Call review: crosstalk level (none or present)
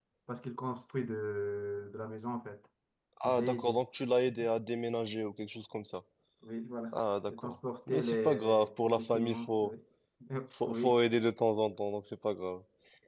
present